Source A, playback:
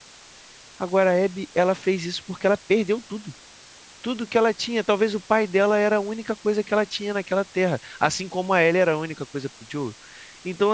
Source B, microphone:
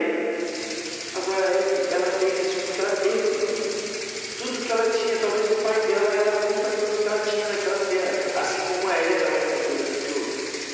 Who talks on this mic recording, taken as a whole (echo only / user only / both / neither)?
echo only